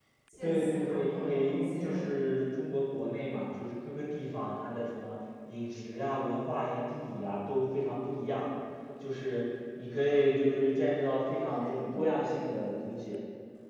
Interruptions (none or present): present